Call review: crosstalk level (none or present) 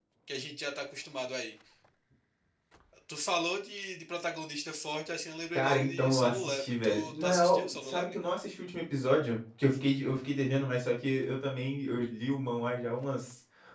present